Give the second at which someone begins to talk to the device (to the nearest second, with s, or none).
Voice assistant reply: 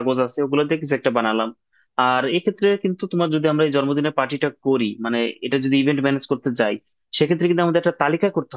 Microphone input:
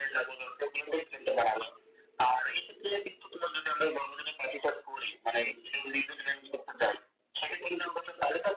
none